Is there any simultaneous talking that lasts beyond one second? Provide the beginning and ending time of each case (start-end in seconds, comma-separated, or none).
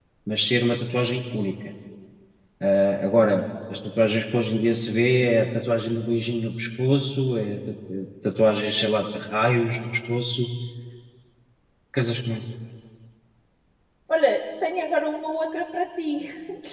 none